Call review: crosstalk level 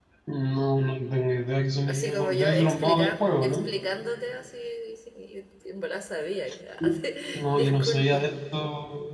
present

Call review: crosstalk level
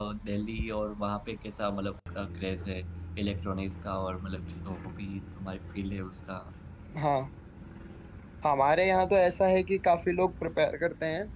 none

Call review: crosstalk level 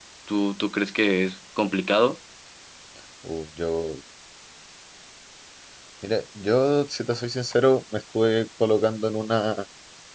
none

